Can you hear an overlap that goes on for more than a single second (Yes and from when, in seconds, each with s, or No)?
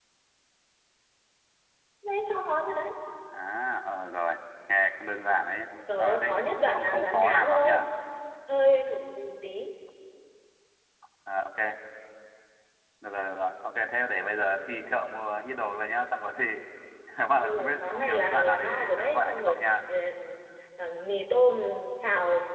Yes, from 5.9 s